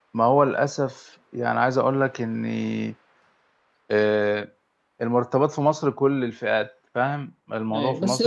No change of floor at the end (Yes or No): No